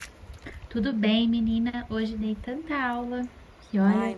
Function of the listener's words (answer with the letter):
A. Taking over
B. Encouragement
A